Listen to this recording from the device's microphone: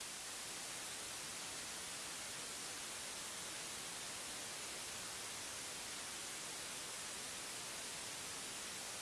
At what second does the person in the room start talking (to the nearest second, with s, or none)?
none